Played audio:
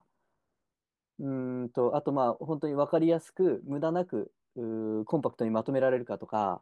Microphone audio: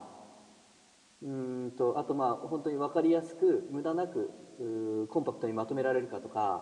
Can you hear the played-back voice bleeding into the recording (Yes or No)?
Yes